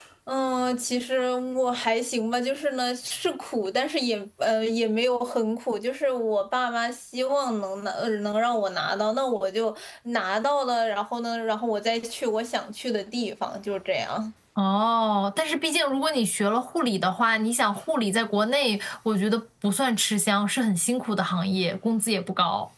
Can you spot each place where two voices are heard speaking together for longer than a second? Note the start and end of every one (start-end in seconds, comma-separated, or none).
none